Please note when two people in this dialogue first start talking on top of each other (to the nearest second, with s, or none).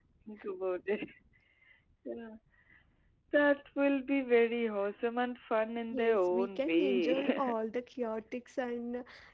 6 s